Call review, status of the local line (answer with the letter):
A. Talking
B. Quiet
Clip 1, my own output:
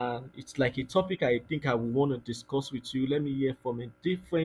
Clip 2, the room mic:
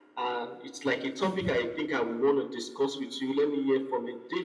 A